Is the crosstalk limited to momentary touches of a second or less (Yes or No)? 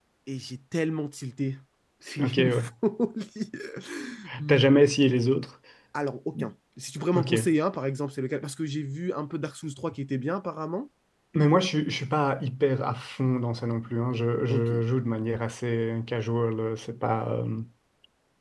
Yes